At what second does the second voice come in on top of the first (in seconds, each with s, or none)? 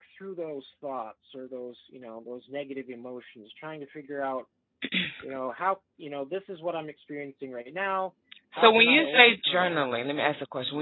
8.5 s